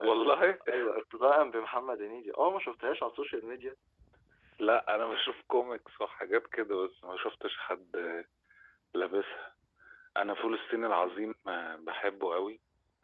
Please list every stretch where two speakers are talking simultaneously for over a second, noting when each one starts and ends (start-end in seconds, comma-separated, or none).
none